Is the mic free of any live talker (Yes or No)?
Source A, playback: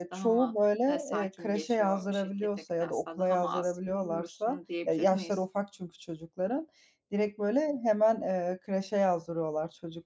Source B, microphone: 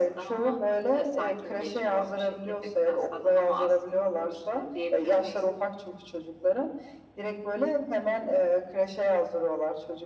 Yes